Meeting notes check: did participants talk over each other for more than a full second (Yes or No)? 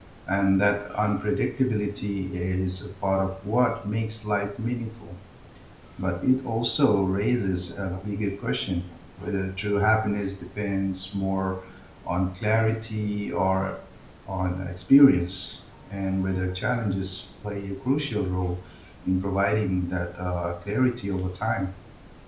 No